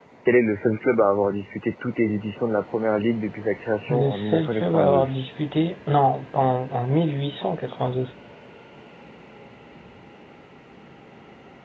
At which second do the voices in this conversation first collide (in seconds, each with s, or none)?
3.9 s